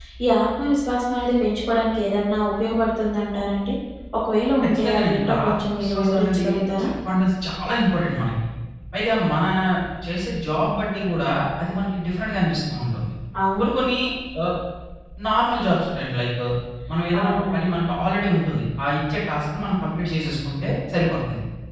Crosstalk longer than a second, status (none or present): present